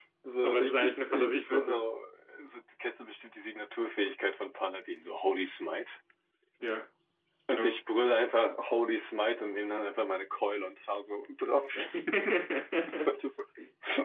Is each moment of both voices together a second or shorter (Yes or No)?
No